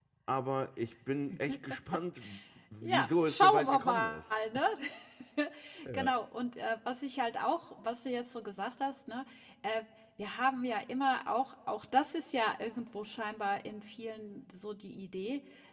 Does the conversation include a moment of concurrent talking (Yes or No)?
Yes